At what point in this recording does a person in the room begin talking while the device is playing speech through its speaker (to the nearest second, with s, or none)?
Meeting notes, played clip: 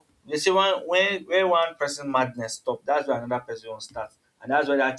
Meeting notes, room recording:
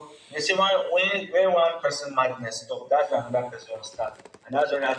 none